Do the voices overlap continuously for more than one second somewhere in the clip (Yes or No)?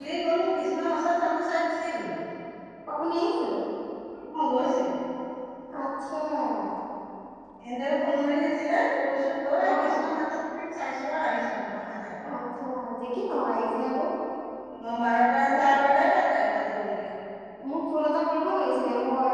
No